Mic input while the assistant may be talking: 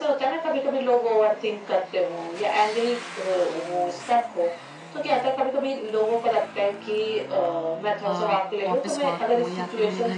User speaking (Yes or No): Yes